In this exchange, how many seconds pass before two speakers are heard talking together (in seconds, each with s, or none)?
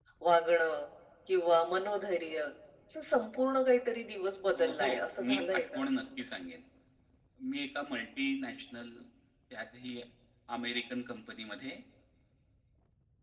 4.5 s